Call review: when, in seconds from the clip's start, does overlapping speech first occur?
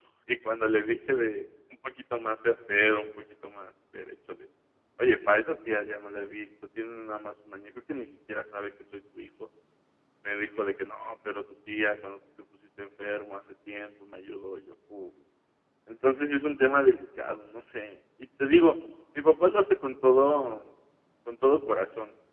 none

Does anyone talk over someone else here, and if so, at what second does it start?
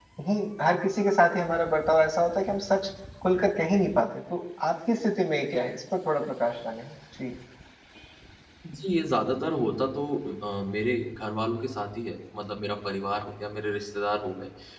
none

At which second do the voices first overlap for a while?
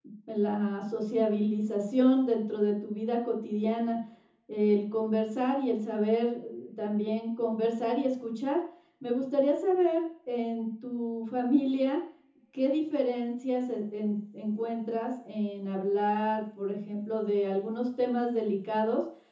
none

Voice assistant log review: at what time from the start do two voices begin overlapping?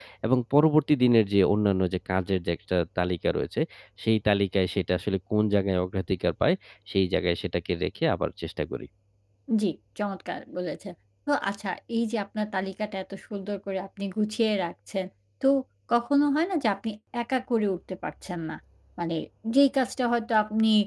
none

